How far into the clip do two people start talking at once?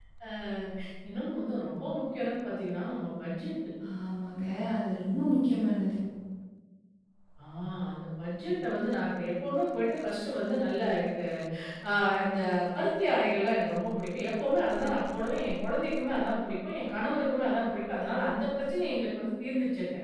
none

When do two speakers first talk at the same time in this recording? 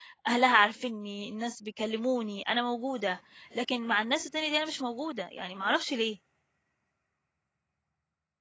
none

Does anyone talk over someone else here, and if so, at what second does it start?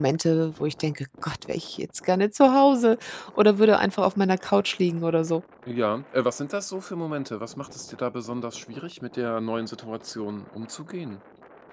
none

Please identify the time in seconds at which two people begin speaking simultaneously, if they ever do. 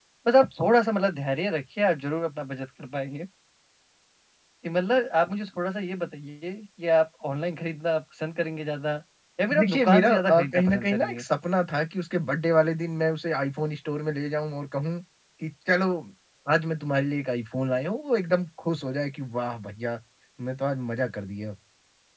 9.6 s

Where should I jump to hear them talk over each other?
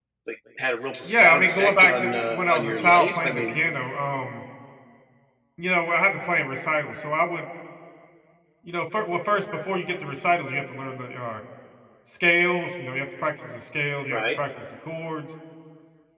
1.1 s

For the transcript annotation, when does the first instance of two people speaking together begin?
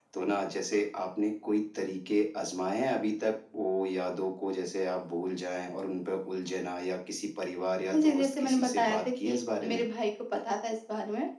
7.9 s

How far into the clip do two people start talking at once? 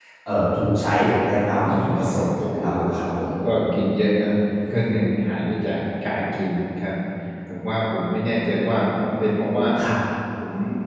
1.4 s

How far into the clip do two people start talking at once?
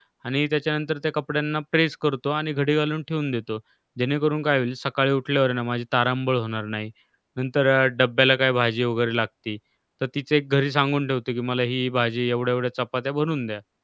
none

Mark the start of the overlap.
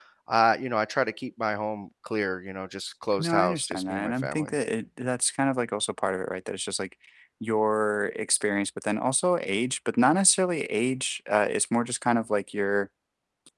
3.1 s

